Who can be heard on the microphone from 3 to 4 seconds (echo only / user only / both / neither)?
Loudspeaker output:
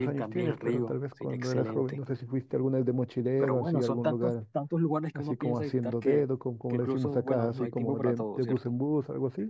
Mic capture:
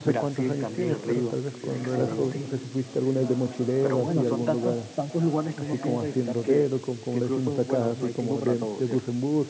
both